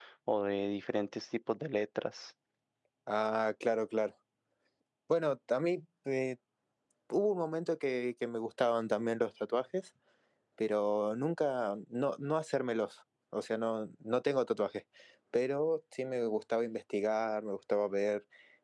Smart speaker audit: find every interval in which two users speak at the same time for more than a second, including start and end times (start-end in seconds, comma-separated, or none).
none